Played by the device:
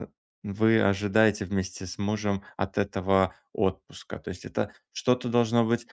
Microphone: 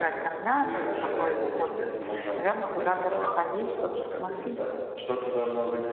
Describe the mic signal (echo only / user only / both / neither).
both